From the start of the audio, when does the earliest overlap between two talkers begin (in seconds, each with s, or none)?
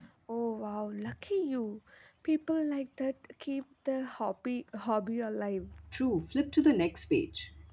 none